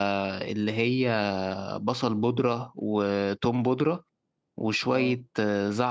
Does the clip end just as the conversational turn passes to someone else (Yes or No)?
No